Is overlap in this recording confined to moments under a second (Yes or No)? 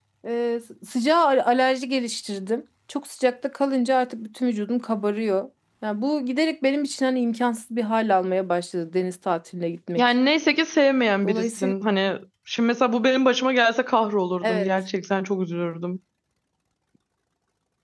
Yes